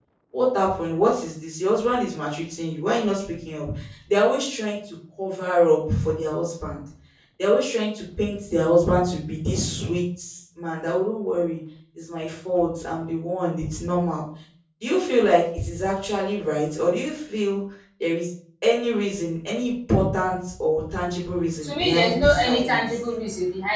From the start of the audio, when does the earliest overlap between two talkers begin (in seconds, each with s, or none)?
21.6 s